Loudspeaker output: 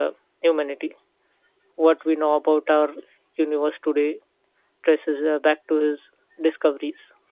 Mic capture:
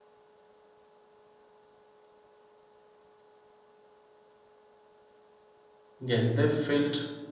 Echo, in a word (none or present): none